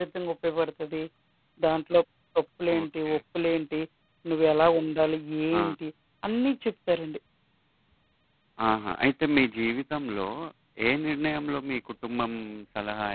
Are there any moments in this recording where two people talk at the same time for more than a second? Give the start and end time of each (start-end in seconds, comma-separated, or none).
none